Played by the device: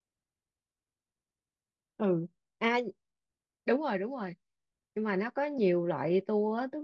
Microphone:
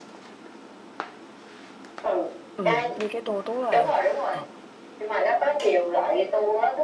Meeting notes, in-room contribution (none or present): present